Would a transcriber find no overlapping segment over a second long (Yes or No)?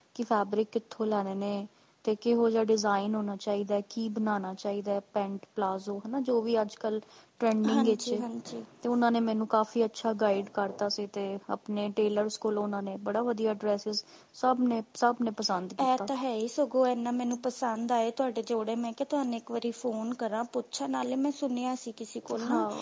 Yes